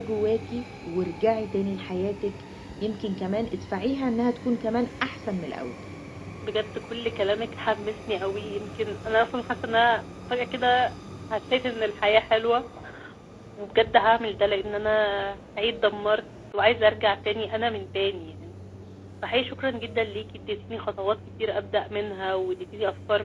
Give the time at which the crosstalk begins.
none

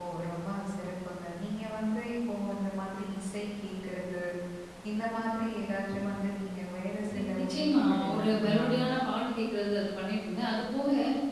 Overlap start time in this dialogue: 7.2 s

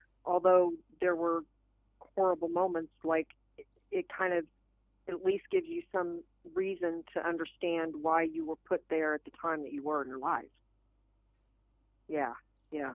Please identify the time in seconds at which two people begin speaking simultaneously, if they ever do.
none

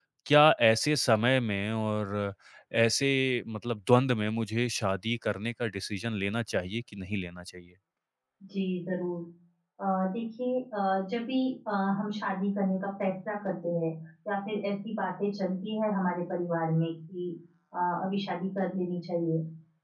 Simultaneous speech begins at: none

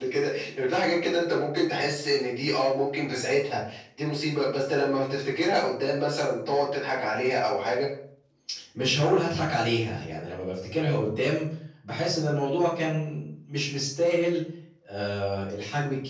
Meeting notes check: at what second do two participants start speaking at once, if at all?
none

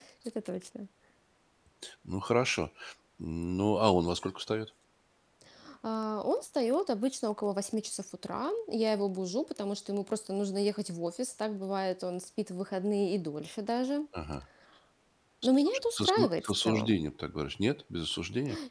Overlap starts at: 15.4 s

